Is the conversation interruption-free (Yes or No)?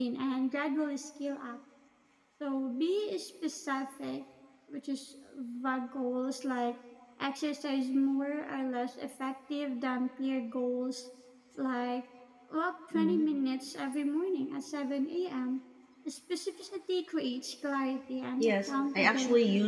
No